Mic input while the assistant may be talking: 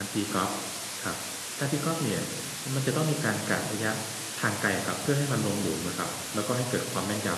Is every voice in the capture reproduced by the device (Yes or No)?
No